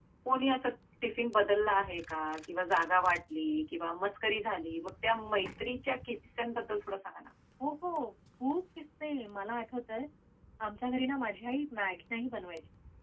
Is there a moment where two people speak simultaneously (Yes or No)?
No